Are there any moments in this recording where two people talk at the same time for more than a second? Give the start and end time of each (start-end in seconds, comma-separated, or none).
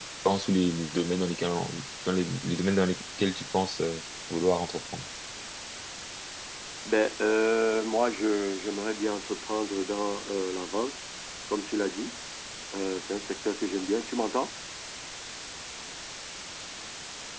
none